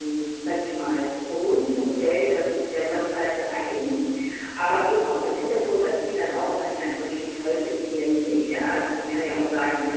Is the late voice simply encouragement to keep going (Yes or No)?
Yes